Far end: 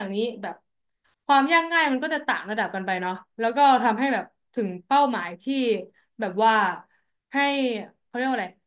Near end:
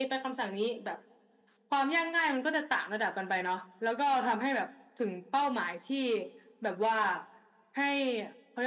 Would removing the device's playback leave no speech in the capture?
Yes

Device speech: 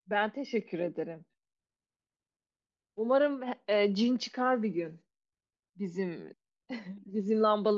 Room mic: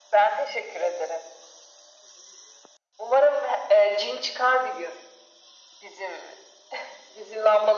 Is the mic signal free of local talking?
Yes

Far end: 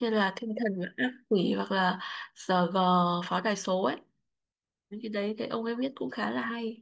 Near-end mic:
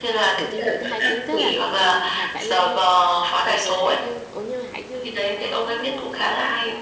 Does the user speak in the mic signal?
Yes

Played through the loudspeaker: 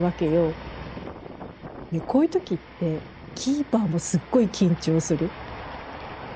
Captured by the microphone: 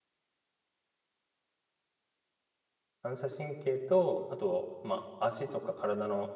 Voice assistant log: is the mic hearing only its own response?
No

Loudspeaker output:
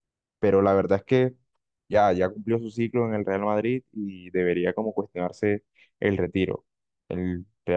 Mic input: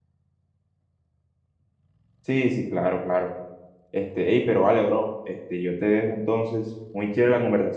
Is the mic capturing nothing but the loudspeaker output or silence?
No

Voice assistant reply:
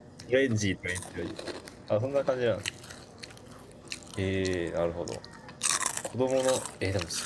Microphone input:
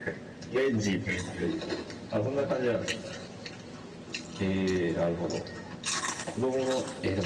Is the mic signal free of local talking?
Yes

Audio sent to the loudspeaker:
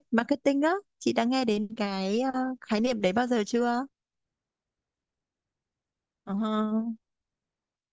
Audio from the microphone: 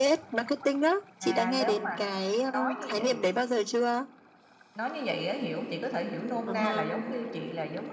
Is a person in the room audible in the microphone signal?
Yes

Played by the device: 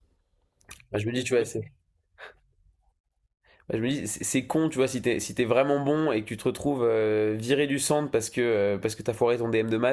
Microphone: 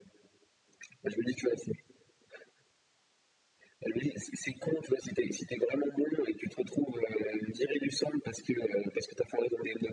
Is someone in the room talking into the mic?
No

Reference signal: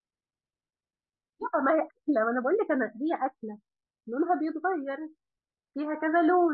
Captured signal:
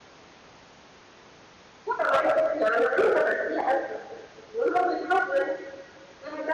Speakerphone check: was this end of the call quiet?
Yes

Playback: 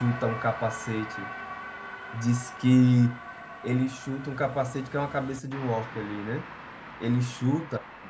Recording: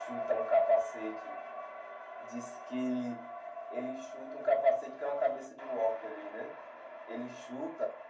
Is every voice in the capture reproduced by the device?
Yes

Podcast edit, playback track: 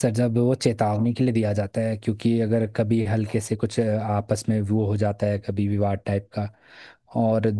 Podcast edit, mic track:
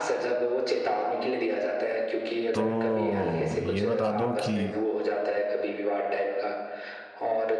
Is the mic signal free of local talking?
No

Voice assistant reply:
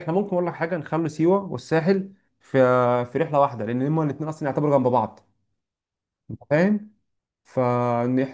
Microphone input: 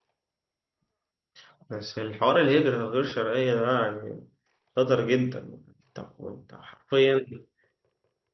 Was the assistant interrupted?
Yes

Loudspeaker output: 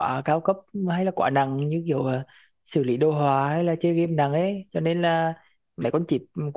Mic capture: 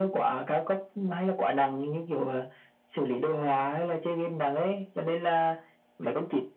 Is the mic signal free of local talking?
Yes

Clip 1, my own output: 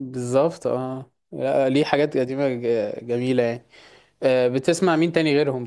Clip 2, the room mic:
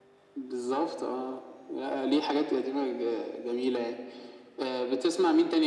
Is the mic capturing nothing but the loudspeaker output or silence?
Yes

